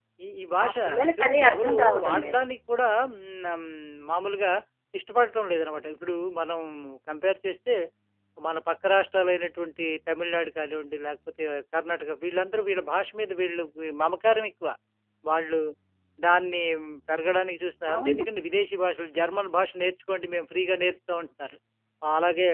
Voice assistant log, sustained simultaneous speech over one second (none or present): present